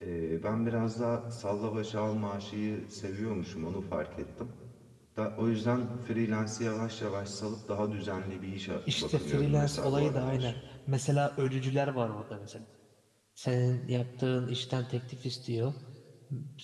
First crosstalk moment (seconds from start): 9 s

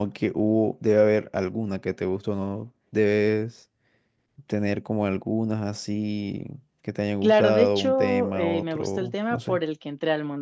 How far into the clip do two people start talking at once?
7 s

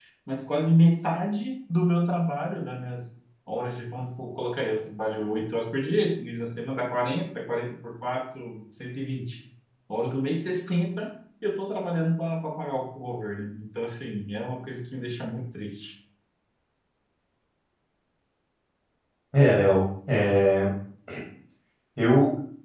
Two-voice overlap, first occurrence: none

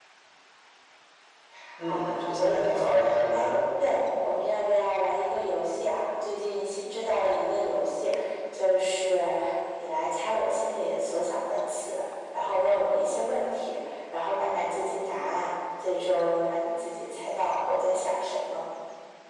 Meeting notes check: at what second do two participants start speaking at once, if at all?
2 s

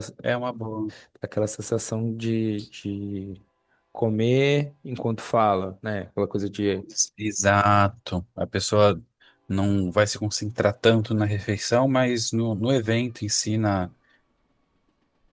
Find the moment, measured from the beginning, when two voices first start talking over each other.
none

